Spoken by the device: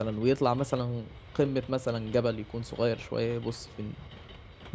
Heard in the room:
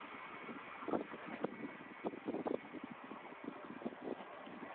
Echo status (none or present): none